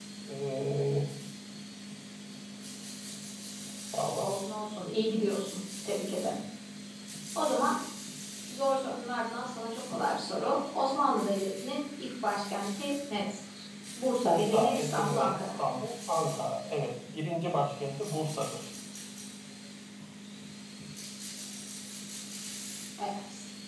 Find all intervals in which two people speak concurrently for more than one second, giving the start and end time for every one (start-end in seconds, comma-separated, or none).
14.2-15.5